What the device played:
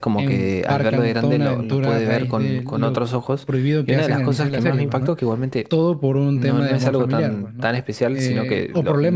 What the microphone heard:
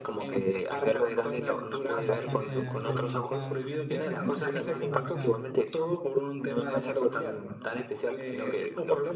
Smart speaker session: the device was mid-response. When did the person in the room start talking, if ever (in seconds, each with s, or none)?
1.9 s